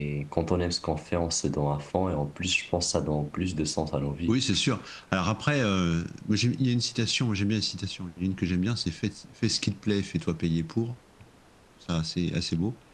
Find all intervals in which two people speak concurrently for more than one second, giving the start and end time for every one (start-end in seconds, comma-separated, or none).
none